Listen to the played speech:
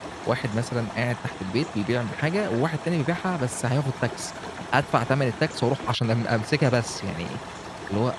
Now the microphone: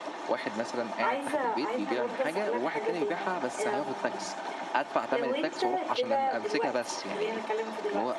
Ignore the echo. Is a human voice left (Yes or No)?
Yes